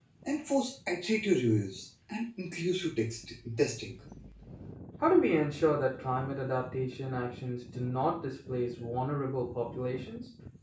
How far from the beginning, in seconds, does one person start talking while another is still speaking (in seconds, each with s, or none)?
none